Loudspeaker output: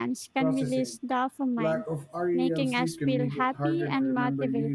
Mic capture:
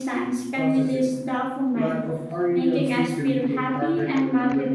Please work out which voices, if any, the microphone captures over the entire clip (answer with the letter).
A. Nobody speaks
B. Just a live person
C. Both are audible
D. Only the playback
D